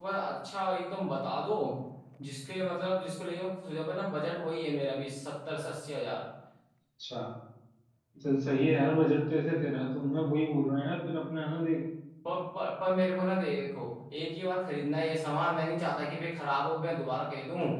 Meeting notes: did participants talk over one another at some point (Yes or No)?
No